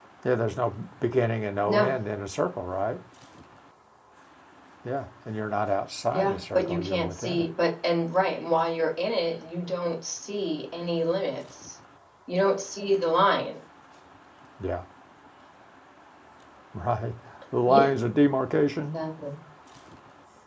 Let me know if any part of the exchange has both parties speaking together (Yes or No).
Yes